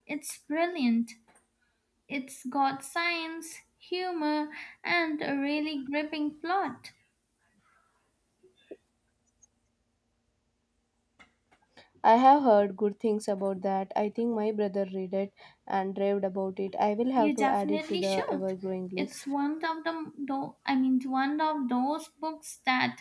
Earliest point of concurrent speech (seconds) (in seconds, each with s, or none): 17.2 s